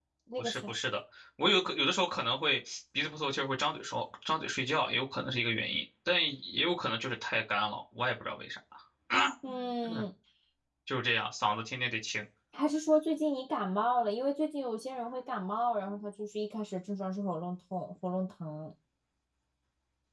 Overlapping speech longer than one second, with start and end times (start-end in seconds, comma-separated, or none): none